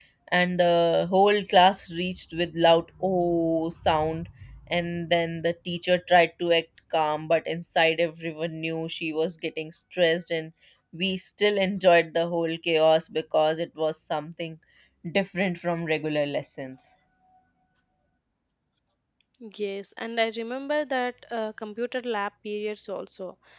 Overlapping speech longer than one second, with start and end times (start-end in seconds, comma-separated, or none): none